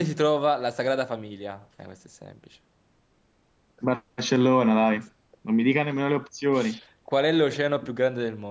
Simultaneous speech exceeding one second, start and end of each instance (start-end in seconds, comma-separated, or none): none